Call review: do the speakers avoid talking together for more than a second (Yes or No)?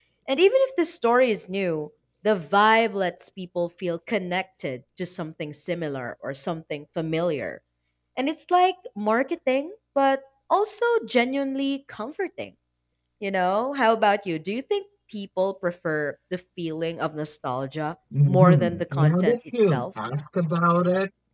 No